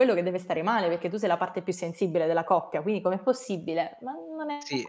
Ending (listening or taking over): taking over